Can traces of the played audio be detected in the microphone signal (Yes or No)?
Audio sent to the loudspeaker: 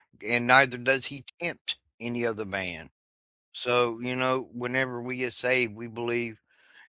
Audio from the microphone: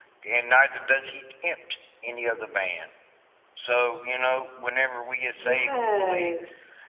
Yes